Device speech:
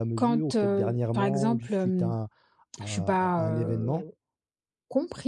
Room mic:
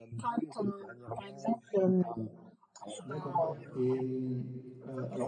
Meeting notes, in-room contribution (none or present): present